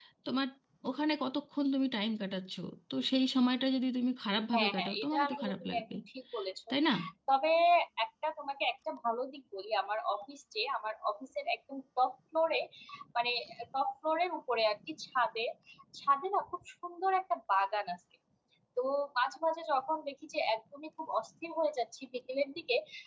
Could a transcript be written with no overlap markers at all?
No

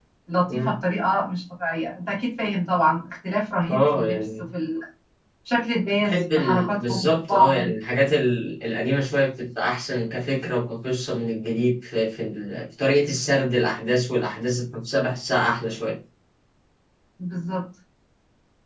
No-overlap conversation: No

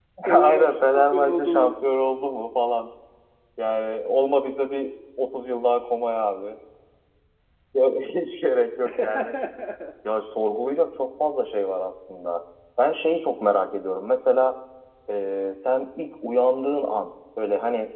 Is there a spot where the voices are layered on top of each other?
Yes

